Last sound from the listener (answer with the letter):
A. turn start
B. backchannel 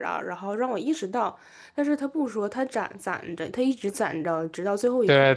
A